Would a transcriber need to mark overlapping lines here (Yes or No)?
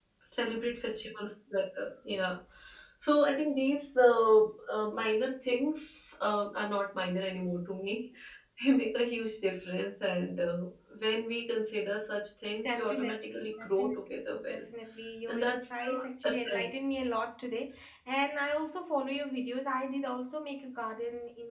Yes